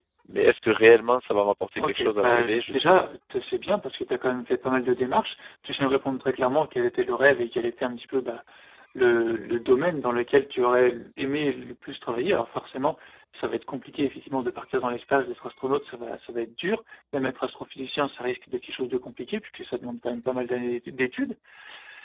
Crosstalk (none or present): present